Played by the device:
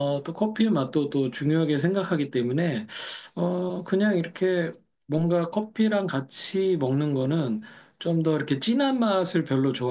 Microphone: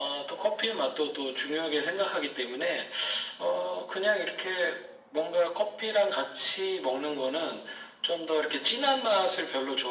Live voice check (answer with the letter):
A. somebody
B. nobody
B